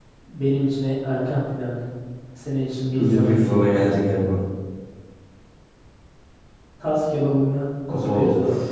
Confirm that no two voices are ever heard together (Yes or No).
No